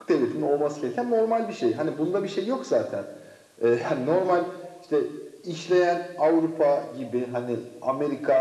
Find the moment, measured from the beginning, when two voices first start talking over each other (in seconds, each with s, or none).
none